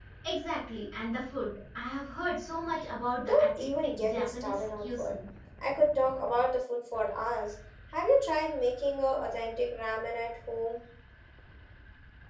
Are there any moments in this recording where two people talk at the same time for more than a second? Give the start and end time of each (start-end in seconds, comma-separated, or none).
3.2-5.2